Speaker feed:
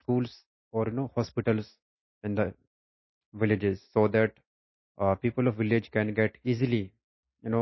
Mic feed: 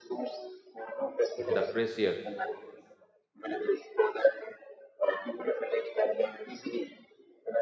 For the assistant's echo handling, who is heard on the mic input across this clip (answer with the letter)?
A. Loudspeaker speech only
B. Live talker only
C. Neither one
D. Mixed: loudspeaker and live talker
D